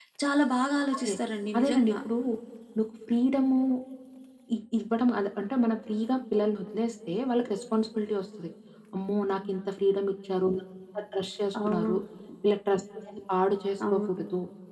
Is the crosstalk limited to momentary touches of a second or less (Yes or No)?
Yes